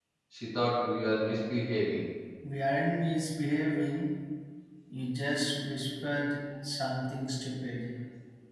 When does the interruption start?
none

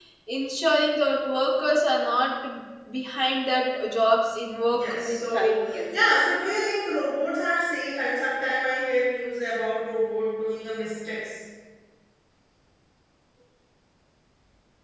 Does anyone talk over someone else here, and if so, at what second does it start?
4.7 s

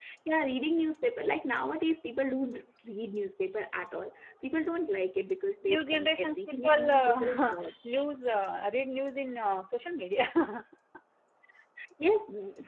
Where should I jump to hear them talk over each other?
5.7 s

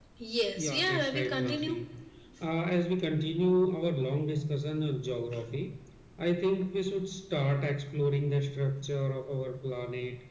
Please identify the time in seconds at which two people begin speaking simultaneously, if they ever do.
0.6 s

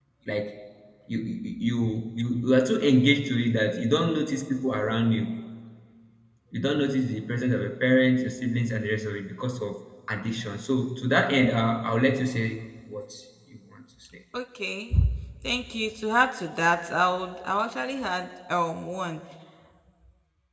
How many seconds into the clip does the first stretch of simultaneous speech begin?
none

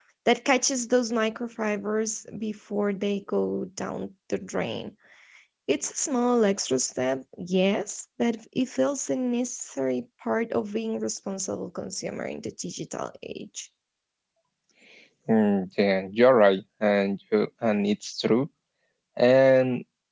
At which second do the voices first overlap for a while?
none

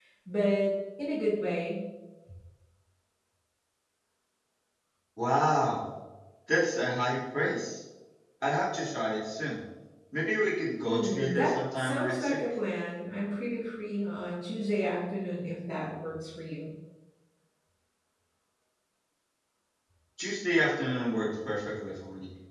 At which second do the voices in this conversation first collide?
10.8 s

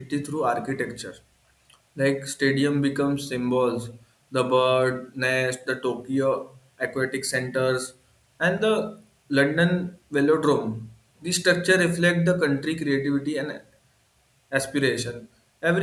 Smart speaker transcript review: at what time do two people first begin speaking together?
none

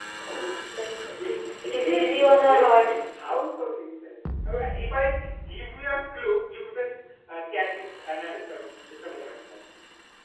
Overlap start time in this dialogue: 1.8 s

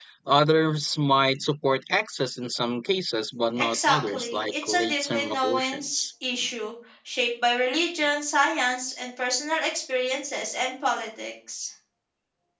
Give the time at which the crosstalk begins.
3.6 s

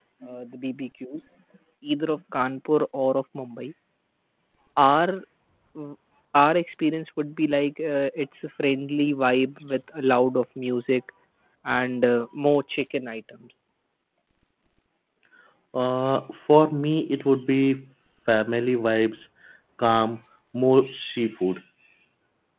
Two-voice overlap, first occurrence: none

